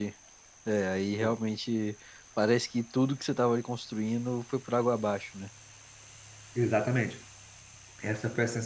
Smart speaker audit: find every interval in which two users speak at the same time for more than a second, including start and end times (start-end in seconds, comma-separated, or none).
none